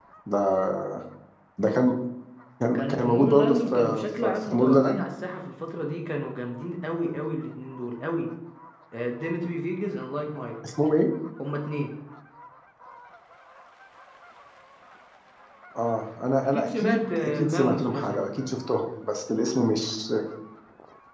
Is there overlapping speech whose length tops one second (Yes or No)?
Yes